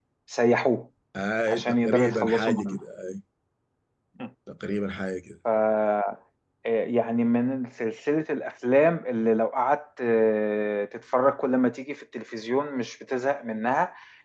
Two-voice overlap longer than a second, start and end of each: 1.5-2.8

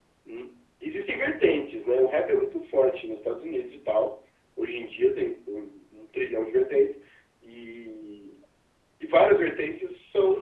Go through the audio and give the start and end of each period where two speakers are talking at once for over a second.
none

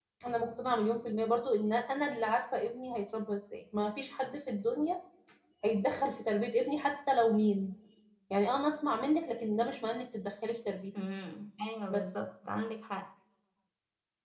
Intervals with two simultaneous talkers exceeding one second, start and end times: none

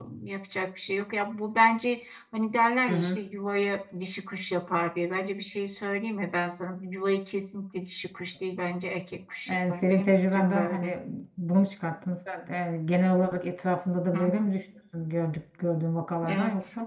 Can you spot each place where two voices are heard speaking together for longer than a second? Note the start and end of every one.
9.5-10.9

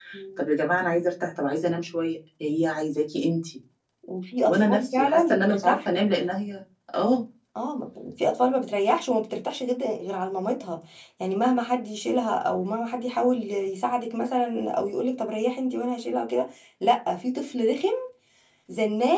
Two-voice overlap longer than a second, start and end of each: 4.4-5.8

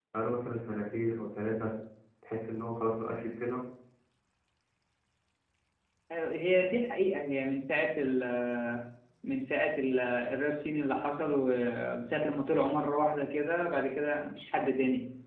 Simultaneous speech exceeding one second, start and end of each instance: none

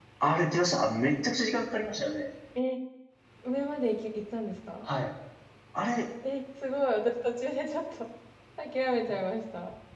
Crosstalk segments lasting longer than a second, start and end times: none

